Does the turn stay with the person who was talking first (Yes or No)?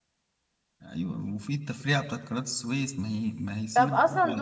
No